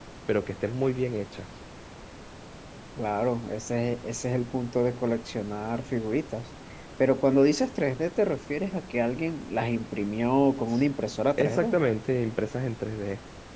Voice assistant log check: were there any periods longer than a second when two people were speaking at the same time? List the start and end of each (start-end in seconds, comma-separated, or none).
none